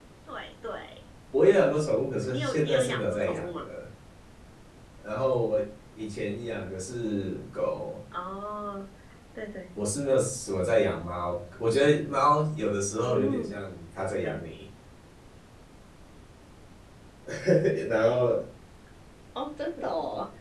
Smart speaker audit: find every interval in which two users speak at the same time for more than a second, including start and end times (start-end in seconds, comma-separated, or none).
2.3-3.6